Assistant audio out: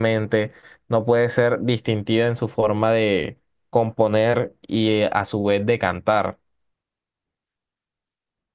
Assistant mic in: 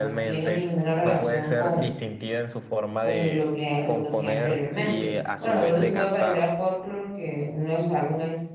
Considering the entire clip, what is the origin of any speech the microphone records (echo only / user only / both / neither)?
both